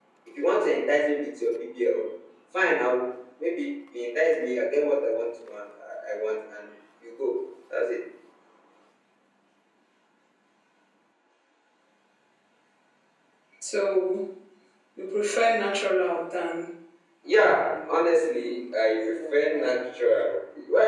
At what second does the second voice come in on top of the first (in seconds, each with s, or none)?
none